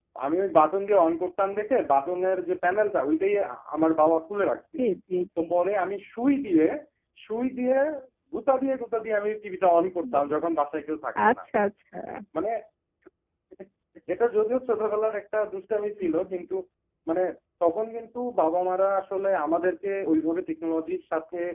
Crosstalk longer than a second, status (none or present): none